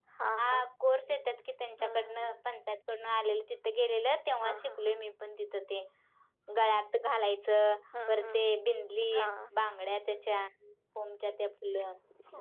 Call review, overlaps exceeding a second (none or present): none